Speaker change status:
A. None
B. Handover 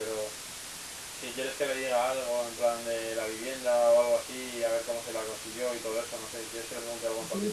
B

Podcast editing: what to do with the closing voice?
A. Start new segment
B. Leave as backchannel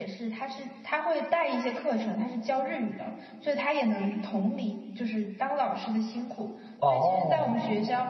B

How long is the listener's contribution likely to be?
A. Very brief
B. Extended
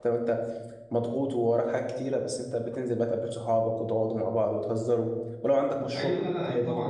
B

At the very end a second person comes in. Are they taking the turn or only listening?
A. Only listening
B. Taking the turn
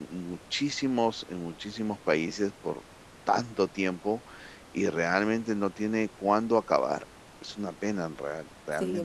B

